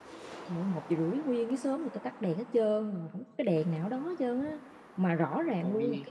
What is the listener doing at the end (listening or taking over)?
listening